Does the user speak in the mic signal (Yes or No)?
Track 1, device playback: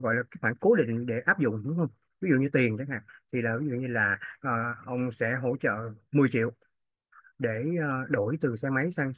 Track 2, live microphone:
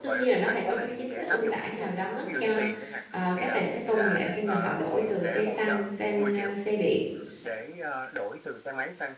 Yes